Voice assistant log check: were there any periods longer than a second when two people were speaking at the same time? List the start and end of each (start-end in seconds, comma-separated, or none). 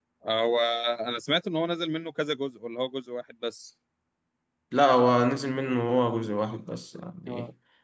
none